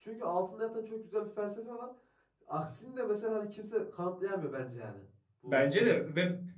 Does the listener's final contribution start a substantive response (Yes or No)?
Yes